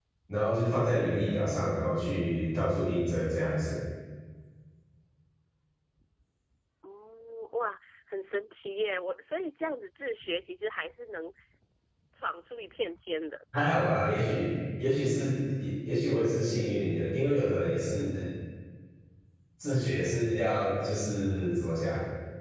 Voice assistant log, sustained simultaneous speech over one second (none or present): none